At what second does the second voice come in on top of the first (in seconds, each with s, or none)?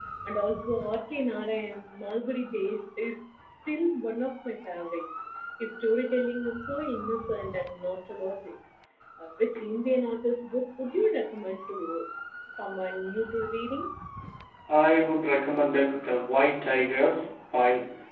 none